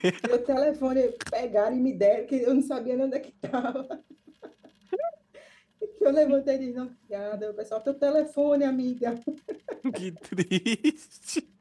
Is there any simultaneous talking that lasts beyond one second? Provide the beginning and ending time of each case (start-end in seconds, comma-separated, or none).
none